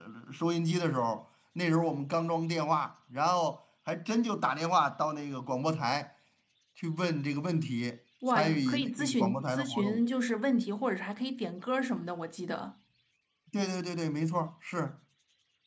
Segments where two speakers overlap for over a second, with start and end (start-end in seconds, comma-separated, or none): 8.3-10.0